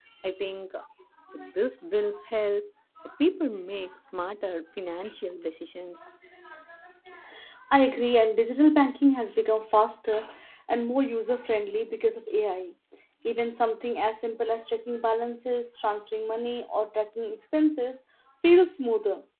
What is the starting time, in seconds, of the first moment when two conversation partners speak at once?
none

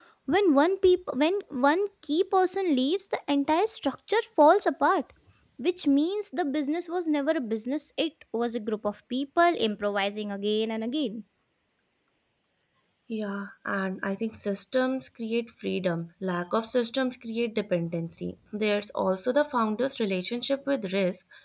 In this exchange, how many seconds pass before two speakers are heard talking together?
none

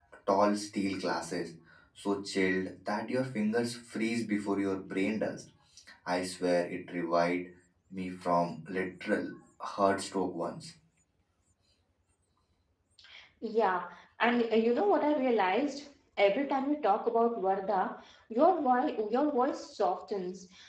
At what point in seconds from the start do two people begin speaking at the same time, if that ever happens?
none

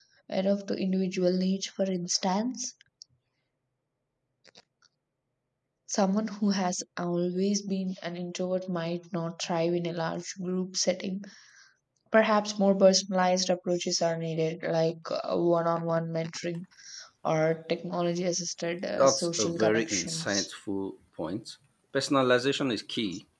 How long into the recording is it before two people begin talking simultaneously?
18.9 s

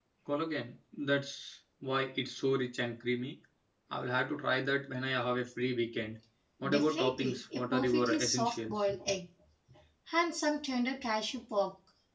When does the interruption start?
6.7 s

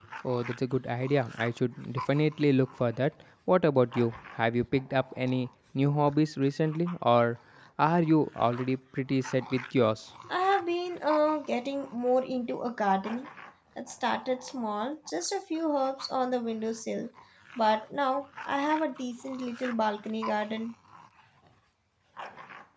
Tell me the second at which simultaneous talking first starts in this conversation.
none

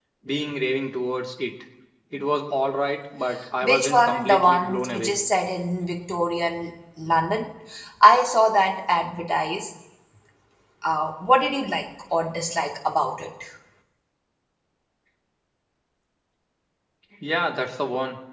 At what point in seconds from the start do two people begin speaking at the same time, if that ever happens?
3.6 s

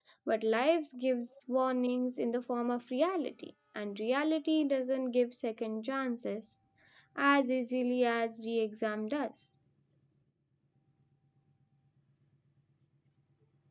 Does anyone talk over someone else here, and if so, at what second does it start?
none

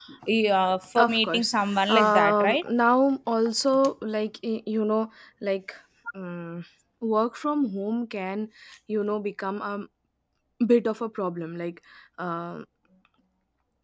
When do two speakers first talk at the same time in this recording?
1.0 s

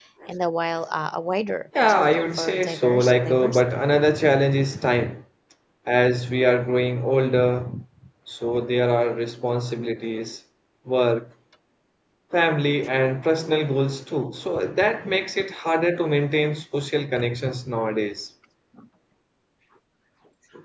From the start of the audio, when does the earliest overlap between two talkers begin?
1.8 s

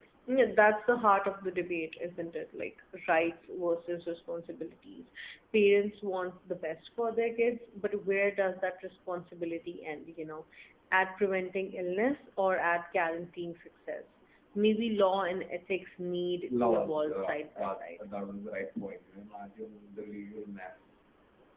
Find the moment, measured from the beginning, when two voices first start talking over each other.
16.5 s

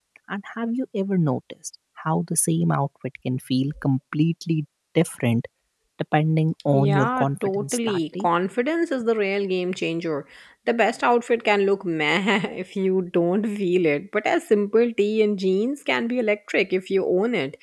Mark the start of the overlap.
6.7 s

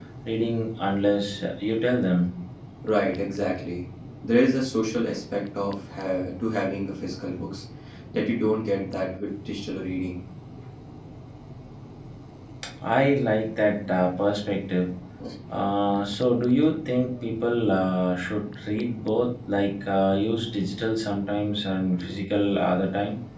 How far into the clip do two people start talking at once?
none

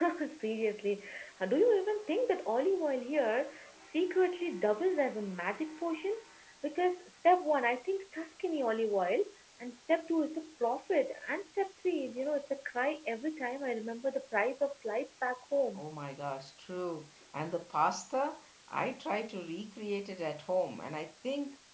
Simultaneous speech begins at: none

